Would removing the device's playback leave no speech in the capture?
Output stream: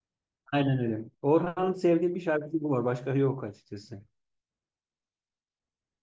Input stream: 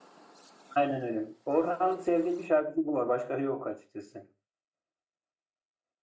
Yes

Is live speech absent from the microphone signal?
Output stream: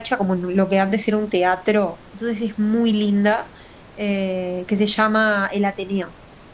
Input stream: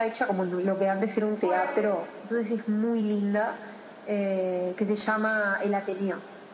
No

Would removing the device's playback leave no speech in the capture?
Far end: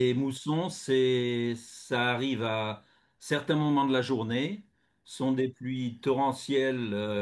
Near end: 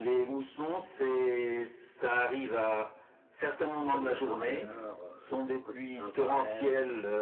No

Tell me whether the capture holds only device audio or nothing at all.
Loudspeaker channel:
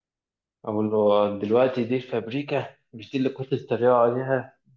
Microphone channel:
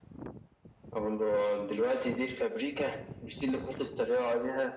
Yes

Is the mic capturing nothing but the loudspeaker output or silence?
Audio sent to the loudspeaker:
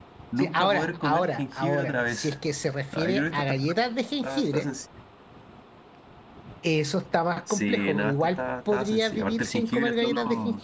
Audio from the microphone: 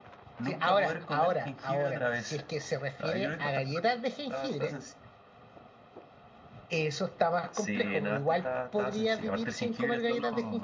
Yes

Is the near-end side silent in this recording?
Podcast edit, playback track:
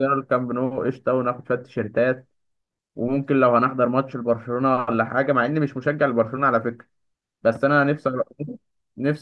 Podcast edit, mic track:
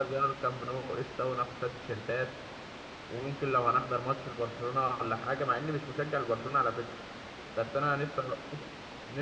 Yes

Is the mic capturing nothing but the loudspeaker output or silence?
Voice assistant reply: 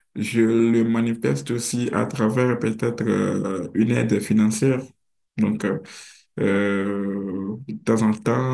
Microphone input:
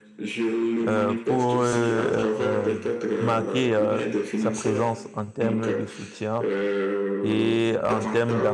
No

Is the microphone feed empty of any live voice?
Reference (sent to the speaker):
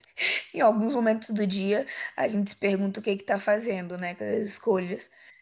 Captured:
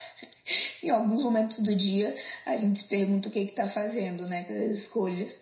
Yes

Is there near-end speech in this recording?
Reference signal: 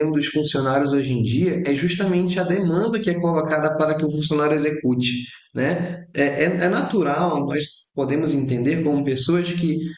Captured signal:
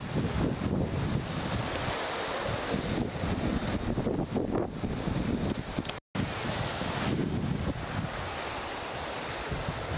No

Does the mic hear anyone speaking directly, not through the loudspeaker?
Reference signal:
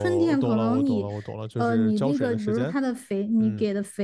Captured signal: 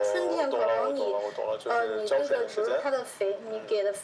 No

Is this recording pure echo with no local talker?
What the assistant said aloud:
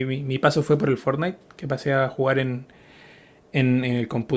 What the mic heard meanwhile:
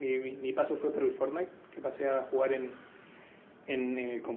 Yes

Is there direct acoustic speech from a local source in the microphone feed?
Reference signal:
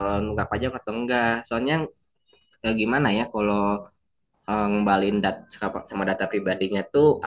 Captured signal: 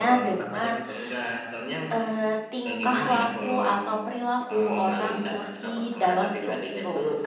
Yes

